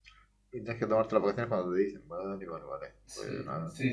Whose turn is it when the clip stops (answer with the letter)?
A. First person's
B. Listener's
B